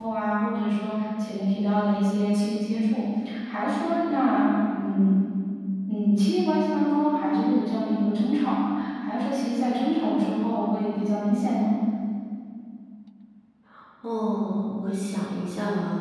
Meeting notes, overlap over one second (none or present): none